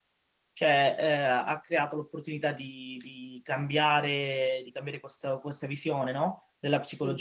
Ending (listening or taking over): listening